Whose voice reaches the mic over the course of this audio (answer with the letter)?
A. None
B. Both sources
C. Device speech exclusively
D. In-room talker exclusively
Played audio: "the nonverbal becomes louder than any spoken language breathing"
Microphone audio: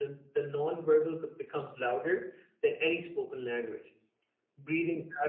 C